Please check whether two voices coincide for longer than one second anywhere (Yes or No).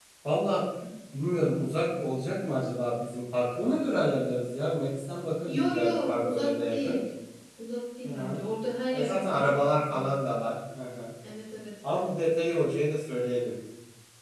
Yes